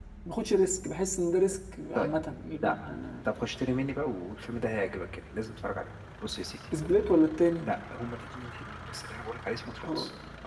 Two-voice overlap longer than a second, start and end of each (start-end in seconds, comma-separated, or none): none